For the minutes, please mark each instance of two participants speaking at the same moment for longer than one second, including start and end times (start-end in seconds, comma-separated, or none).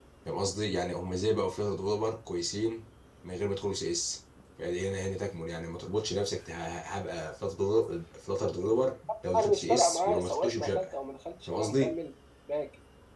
9.4-10.9